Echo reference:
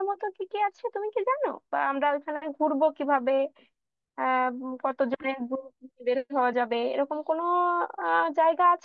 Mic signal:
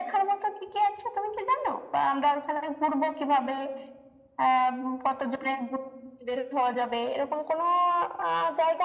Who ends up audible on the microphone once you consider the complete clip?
echo only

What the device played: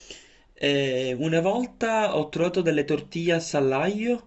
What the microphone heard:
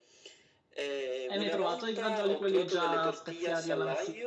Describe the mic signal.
both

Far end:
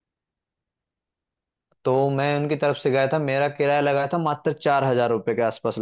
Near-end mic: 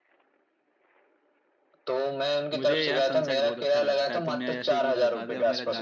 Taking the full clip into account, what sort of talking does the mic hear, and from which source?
both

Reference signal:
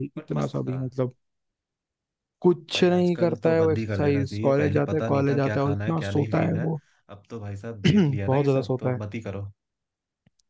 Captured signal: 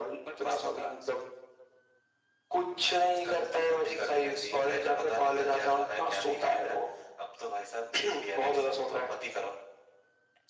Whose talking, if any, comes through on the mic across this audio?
echo only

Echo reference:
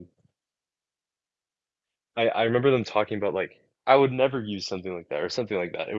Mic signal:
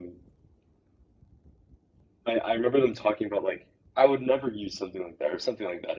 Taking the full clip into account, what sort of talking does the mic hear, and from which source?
echo only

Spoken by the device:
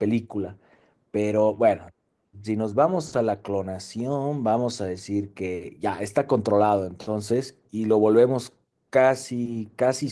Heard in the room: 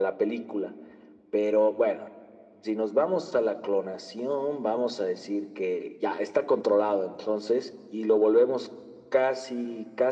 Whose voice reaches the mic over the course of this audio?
echo only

